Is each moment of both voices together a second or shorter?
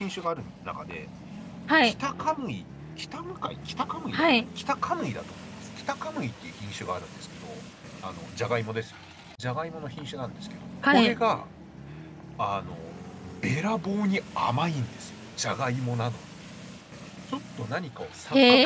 Yes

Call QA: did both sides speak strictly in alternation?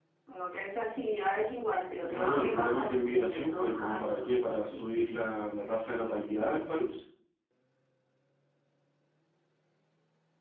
No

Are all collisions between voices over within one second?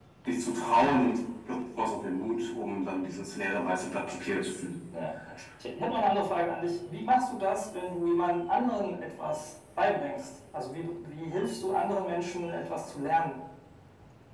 Yes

